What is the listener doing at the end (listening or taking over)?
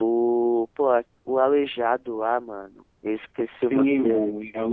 taking over